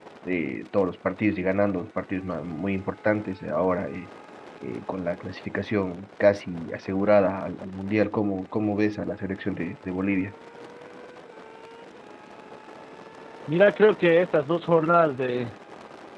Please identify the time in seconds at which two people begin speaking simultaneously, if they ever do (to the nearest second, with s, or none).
none